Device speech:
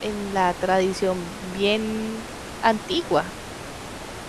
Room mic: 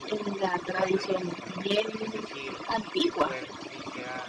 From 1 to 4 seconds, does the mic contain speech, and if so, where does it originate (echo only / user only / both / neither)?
both